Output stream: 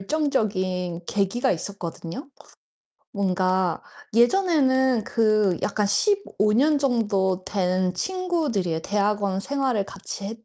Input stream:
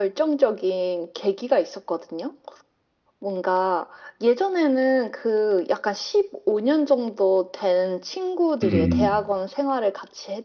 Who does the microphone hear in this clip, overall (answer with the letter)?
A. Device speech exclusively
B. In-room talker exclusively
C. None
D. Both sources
D